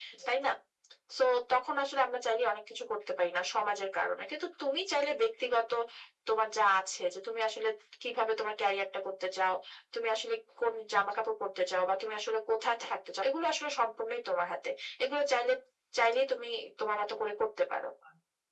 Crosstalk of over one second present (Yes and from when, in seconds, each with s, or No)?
No